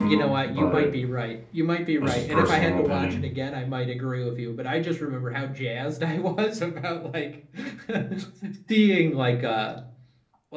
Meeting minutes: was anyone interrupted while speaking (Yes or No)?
Yes